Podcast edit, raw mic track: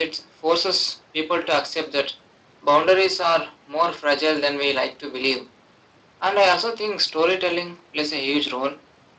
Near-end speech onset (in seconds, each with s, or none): none